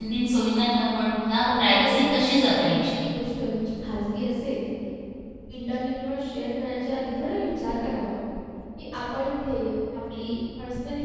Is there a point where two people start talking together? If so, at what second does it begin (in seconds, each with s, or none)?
1.3 s